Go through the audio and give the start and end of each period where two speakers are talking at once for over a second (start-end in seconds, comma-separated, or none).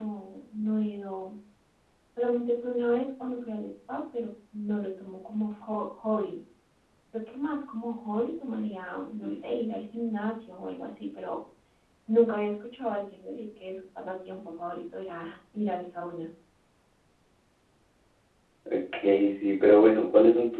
none